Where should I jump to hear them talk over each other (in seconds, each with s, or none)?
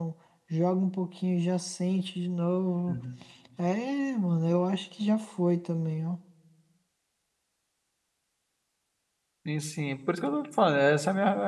none